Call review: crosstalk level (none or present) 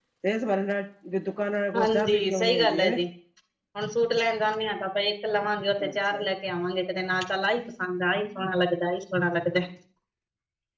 present